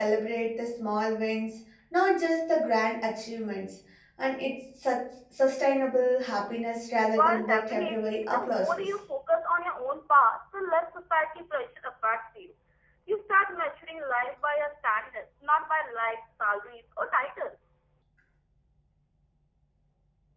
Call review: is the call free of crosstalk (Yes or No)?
No